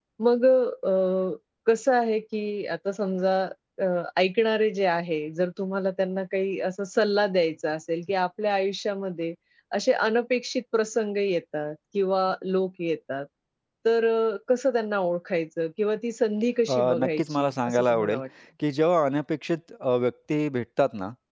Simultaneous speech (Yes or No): Yes